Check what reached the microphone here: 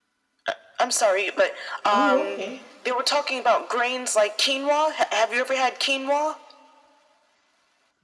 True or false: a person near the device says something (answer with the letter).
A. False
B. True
B